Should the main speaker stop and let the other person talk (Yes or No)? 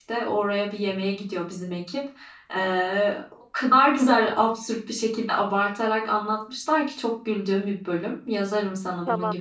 Yes